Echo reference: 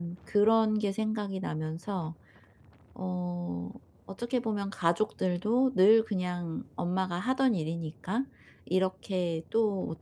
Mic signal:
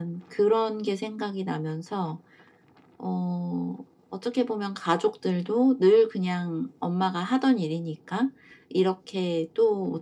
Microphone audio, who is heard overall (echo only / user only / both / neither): echo only